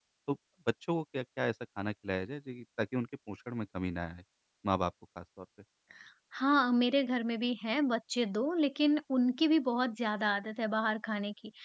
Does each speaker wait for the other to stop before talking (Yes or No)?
Yes